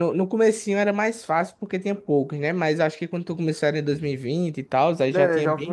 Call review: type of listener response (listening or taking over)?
taking over